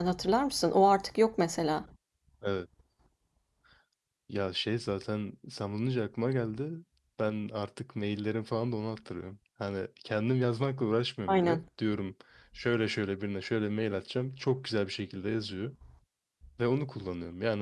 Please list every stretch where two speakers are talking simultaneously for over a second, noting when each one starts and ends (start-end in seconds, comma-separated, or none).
none